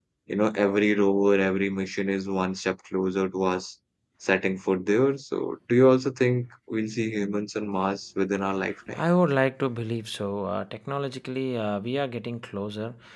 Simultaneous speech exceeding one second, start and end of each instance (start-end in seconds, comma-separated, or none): none